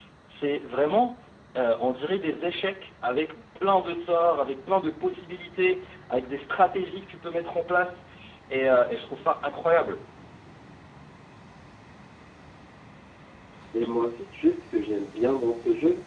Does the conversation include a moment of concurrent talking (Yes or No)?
No